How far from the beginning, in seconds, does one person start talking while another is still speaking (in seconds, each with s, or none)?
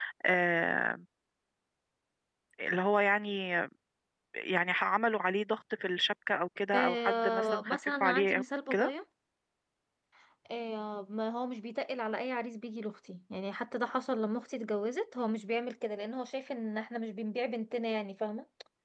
6.7 s